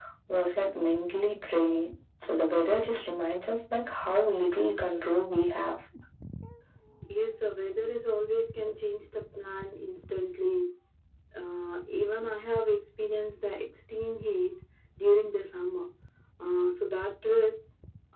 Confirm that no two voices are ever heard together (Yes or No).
Yes